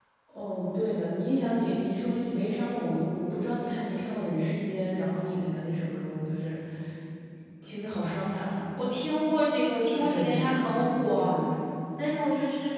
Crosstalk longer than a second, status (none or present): present